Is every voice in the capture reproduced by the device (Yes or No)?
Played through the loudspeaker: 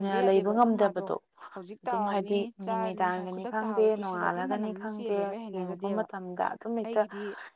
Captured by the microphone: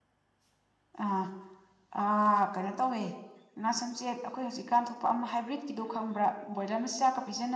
No